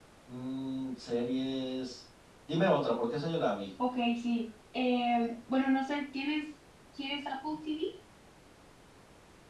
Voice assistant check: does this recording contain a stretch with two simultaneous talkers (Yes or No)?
No